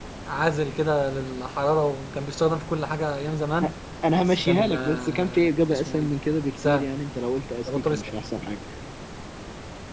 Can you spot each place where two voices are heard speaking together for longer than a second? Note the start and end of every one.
4.3-6.1

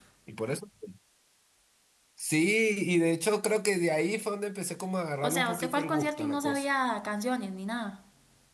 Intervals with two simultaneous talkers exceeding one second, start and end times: 5.2-6.6

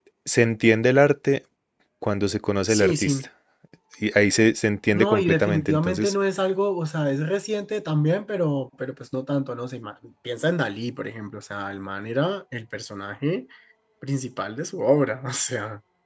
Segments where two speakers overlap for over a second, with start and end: 4.9-6.1

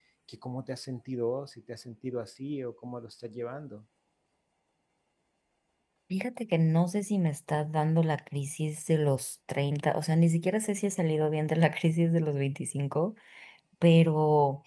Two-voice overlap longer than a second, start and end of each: none

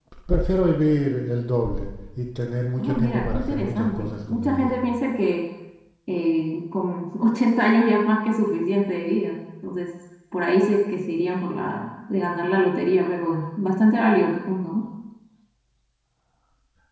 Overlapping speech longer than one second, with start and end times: 2.8-4.8

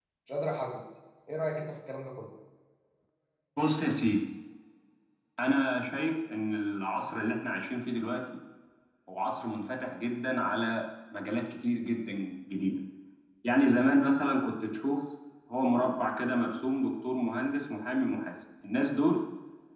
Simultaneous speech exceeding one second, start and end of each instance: none

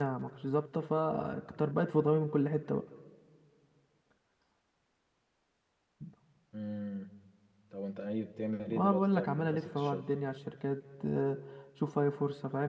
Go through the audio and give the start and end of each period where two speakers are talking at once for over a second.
8.7-10.1

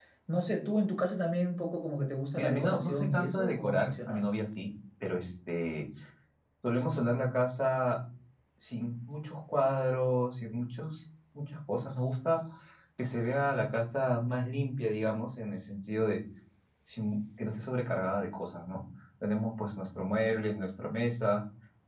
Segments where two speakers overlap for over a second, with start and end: 2.3-4.2

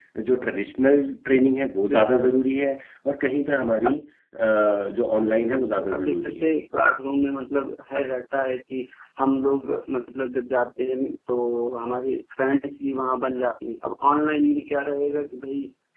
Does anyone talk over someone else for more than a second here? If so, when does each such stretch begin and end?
5.3-6.5

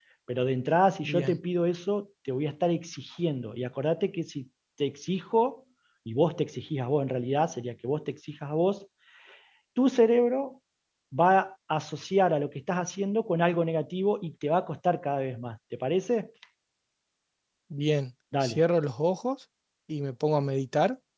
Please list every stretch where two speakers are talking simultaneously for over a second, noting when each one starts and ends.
none

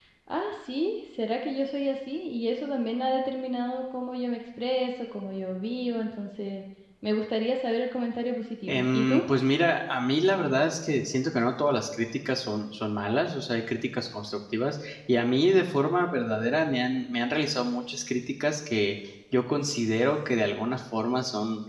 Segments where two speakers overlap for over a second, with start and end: none

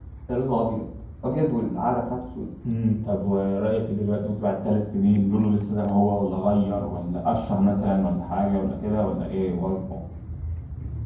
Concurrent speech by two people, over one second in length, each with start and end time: none

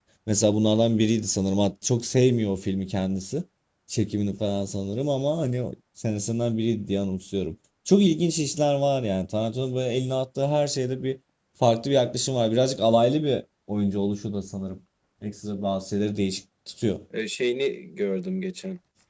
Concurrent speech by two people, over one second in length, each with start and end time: none

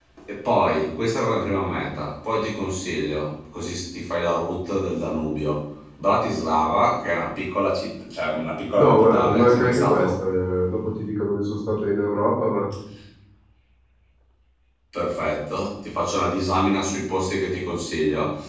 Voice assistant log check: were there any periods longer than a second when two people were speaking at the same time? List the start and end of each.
8.8-10.1

